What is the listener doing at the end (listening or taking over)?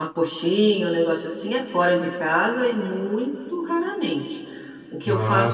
listening